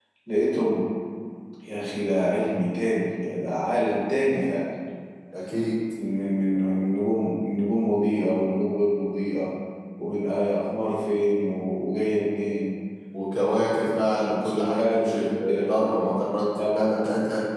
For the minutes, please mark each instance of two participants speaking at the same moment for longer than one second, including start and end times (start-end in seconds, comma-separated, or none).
14.4-16.2